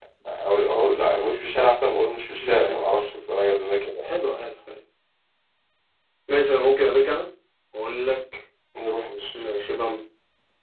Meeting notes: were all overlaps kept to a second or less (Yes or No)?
Yes